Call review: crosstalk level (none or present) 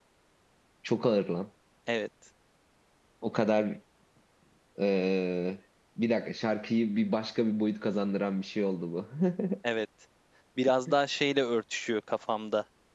none